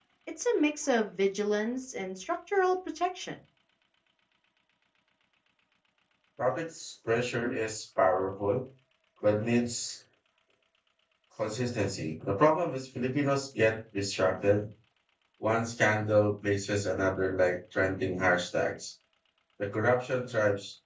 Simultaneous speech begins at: none

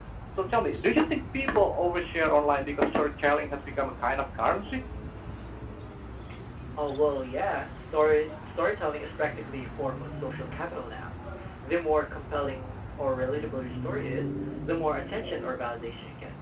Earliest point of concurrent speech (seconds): none

